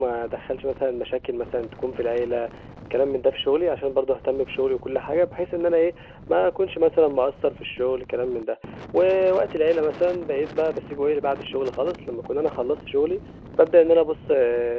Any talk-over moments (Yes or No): No